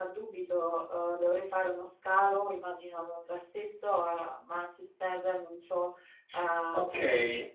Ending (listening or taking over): taking over